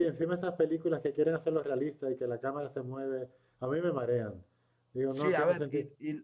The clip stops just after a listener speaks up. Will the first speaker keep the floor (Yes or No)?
No